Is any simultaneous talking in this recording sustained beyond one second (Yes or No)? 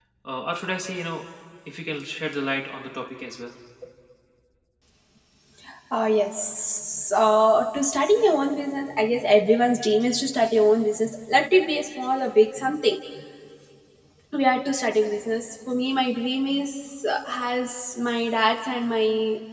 No